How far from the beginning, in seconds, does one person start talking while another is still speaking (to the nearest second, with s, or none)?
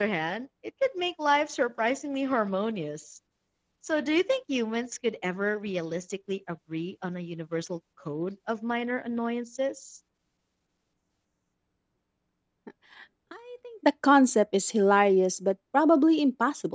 none